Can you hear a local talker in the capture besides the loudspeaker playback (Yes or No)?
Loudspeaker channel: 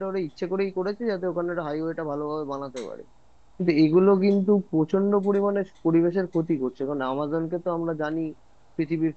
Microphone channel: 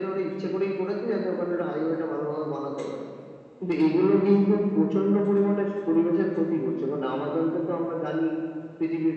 No